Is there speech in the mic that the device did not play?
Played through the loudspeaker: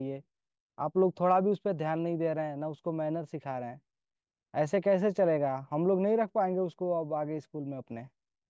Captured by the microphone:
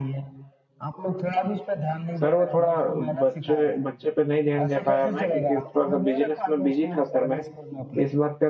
Yes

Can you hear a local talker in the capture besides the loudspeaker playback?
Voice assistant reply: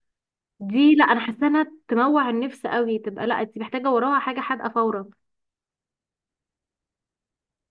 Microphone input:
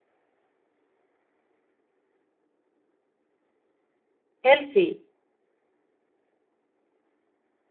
Yes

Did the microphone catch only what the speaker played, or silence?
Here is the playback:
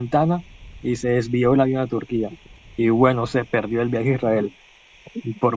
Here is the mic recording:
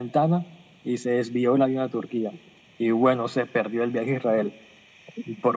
Yes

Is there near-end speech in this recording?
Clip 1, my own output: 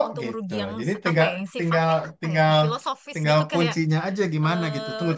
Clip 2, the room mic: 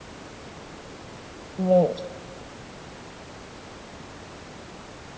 Yes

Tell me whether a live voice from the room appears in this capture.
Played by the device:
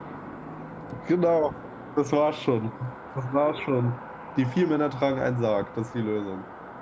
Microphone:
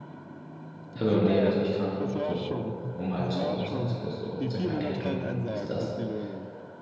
Yes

